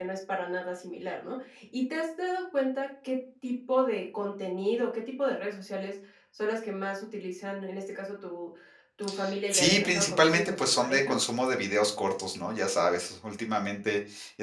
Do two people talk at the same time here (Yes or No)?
Yes